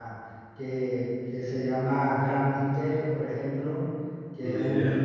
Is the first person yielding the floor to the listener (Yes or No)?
No